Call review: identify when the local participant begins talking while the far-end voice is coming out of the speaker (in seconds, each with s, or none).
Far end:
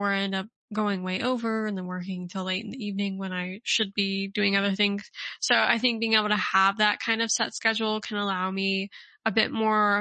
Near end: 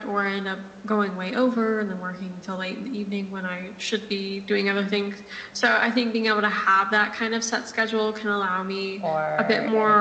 9.0 s